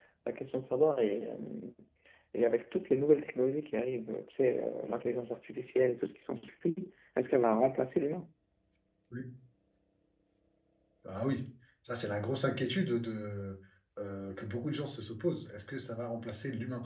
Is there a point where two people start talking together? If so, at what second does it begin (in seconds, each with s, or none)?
none